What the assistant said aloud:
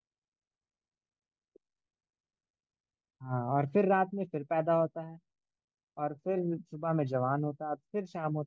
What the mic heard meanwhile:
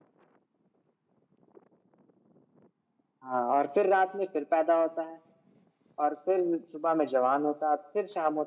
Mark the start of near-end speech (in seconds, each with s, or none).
none